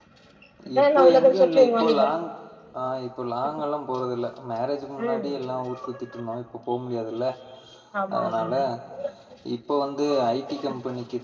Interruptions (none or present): present